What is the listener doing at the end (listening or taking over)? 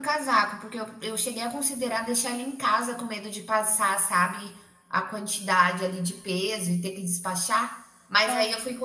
listening